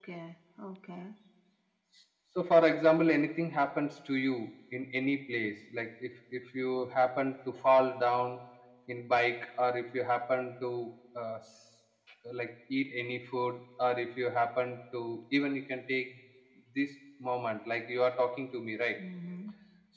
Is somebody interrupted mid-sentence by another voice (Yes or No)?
No